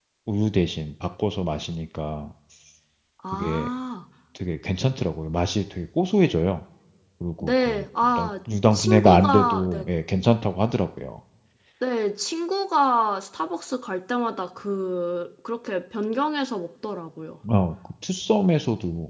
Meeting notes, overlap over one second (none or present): present